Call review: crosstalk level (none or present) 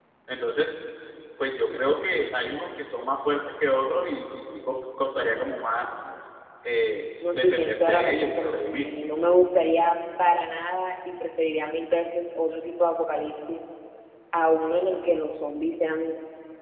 present